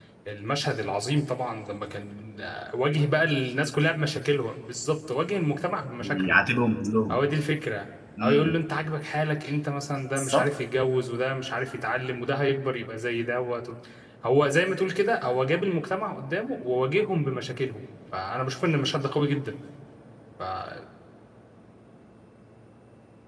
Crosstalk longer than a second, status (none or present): none